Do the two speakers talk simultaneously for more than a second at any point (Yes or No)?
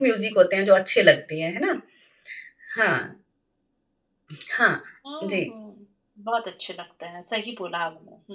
No